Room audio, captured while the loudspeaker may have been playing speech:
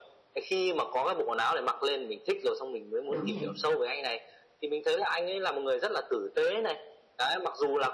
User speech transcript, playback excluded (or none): đúng vậy.